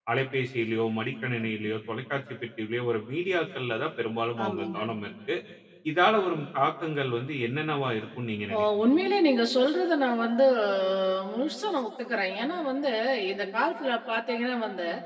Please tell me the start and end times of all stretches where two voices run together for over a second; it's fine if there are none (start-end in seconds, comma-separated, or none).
none